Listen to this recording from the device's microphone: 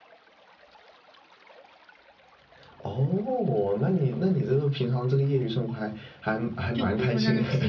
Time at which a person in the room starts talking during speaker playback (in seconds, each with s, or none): 6.7 s